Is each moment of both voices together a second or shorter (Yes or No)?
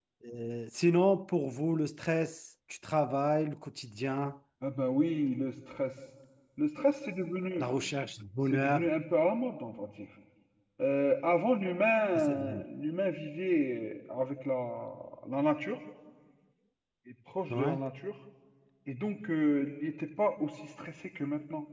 Yes